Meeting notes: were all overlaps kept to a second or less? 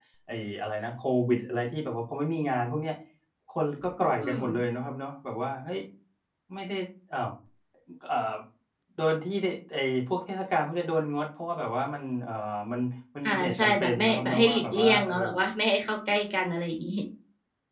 No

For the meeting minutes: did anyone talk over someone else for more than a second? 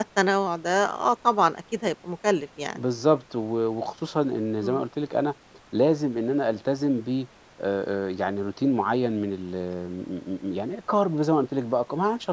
No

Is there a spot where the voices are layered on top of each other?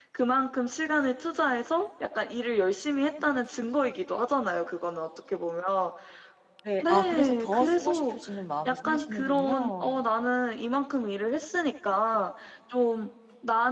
Yes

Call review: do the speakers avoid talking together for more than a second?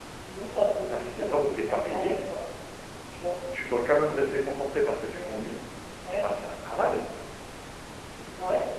No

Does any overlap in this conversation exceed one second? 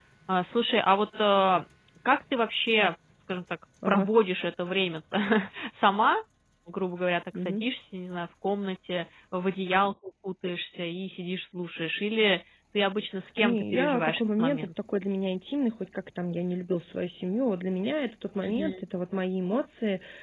Yes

